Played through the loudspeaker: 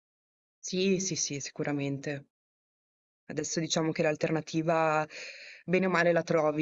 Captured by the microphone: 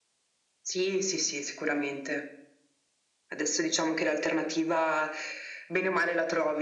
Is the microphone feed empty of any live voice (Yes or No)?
Yes